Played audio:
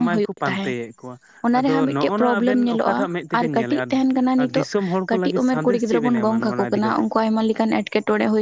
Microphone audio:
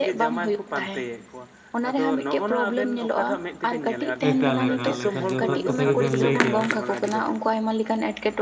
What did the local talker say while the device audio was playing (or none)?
ᱮᱠᱟᱞ ᱮᱠᱟᱞ ᱮᱠᱟᱞ, ᱡᱚᱛᱷᱟᱛ ᱠᱟᱛᱷᱟ ᱜᱮᱵᱮᱱ ᱞᱟᱹᱭ ᱠᱮᱜᱼᱟ᱾